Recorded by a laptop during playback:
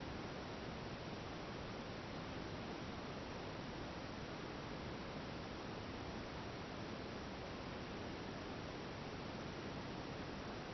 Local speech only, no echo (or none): none